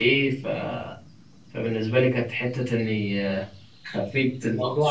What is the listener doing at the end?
listening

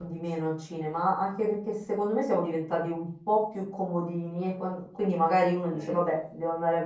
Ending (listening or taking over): listening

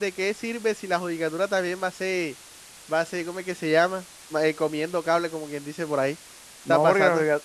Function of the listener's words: taking over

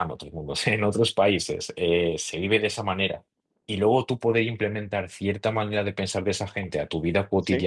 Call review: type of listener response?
listening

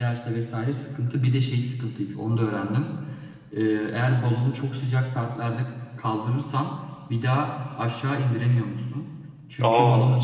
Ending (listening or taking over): listening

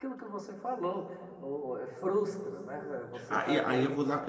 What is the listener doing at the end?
taking over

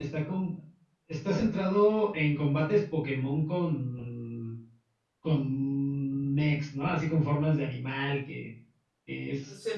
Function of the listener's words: taking over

